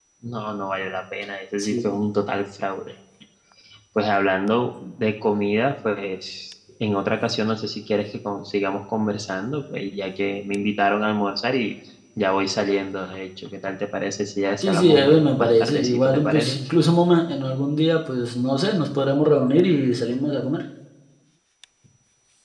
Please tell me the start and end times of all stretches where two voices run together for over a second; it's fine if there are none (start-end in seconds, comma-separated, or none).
14.6-16.6